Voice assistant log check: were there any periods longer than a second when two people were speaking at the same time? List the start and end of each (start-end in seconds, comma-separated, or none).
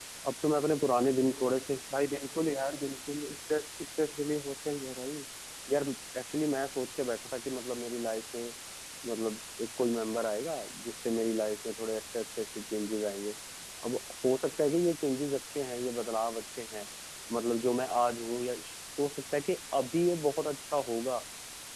none